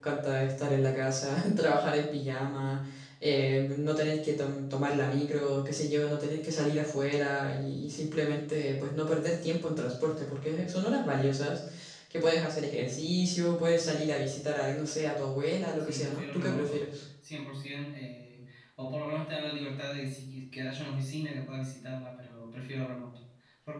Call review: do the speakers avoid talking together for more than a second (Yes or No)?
No